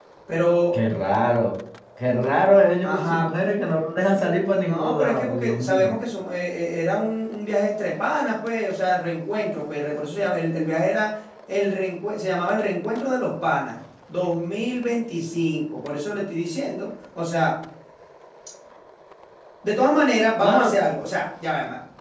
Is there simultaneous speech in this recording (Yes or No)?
Yes